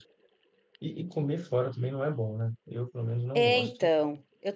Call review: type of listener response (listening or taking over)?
taking over